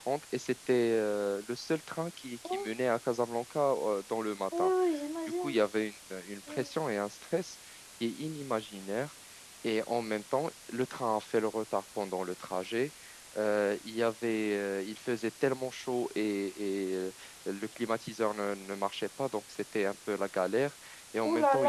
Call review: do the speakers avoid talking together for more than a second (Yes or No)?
Yes